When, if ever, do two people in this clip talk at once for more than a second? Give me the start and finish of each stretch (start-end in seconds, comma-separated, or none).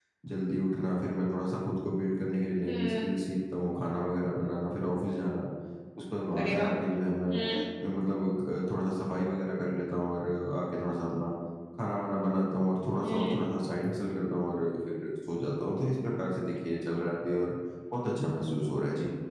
none